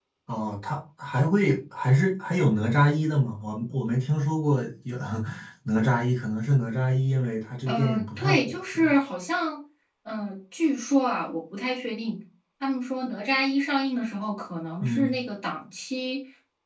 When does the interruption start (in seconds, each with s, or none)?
7.7 s